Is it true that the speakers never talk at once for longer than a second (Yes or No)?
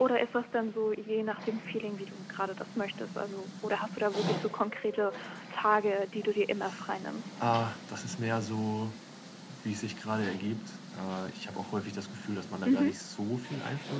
Yes